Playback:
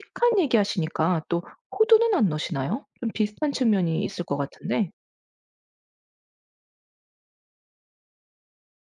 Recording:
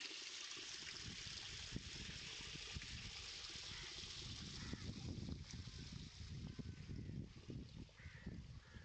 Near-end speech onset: none

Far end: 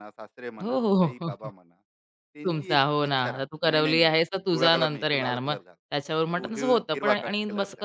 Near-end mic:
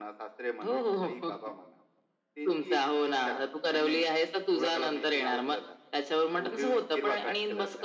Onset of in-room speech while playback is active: none

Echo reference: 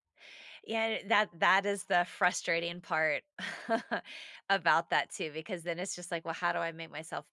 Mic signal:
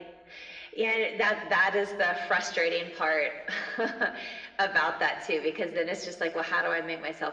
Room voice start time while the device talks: none

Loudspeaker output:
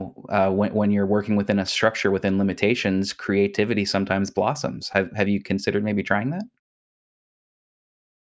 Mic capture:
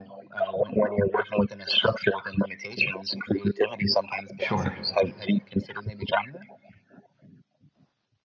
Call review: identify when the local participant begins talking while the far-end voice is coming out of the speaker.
4.4 s

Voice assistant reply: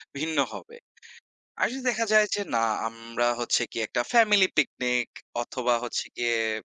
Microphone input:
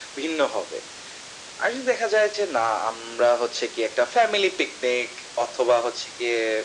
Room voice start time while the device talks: none

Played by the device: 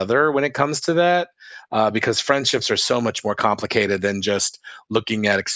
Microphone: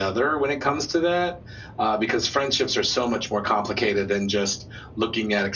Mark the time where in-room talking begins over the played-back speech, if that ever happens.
none

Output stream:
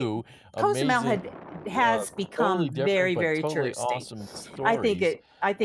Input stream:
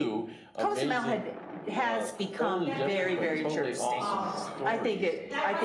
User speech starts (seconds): 2.5 s

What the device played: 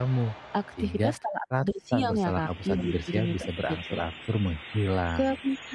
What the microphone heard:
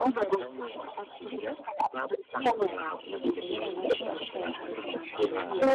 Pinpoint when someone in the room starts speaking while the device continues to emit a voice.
3.3 s

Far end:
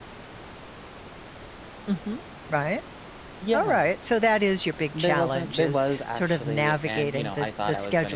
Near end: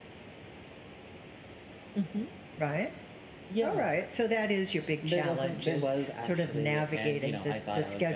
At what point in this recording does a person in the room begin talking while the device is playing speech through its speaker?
none

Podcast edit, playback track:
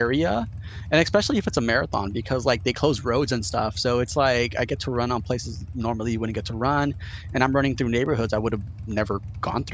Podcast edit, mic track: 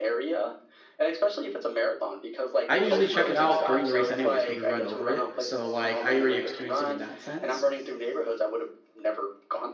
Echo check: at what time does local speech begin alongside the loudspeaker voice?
2.7 s

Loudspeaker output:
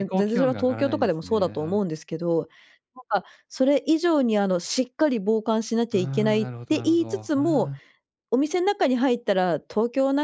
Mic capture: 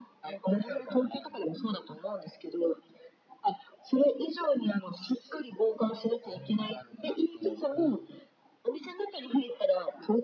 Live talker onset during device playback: none

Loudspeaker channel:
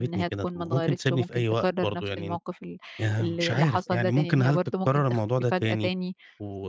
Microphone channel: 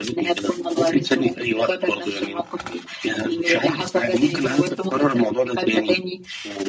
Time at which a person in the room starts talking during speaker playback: none

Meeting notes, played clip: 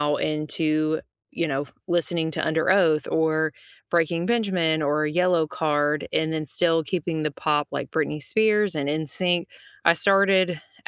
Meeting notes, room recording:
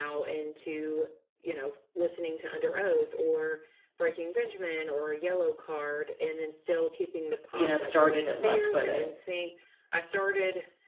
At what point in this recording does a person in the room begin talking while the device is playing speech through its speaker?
7.5 s

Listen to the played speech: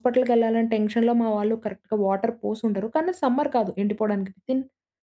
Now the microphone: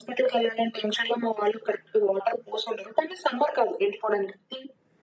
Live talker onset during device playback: none

